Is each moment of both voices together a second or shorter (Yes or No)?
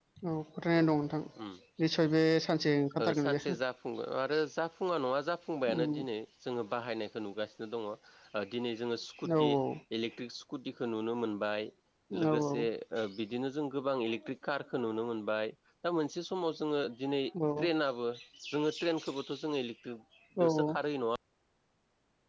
Yes